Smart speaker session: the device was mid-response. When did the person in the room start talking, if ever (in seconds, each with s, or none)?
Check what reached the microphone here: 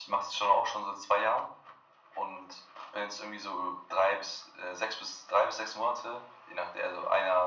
none